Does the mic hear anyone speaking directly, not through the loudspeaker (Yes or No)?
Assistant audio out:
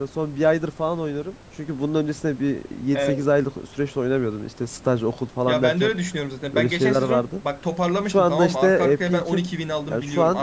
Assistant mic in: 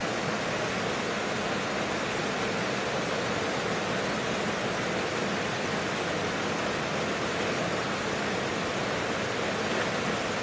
No